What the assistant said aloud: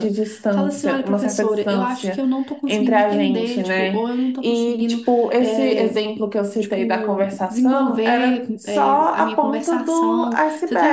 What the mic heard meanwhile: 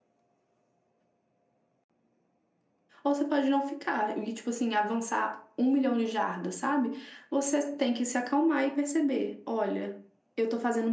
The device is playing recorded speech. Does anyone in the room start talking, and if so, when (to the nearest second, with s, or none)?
3 s